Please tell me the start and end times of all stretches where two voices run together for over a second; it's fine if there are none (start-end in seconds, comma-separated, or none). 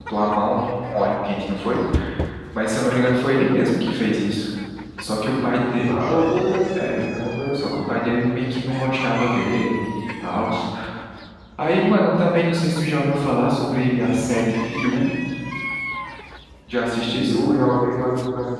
none